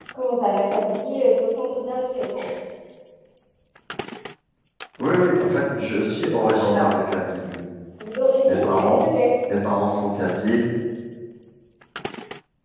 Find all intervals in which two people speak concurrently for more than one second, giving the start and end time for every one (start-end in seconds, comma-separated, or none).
none